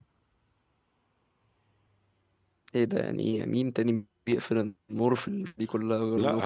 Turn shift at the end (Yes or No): Yes